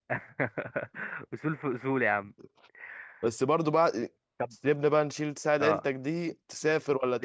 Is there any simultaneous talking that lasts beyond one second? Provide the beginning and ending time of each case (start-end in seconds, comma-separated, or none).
none